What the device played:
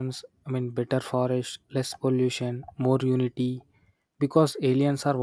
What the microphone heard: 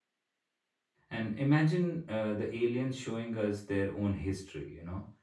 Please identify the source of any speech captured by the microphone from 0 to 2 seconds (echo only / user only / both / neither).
user only